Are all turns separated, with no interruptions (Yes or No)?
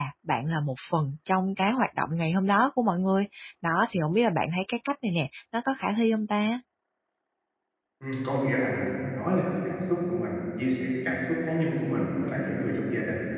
Yes